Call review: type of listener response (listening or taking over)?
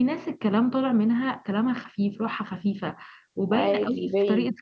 listening